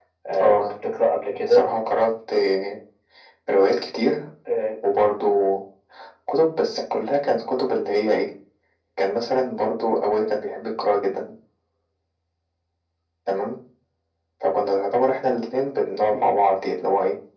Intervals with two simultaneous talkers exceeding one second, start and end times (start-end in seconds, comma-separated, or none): none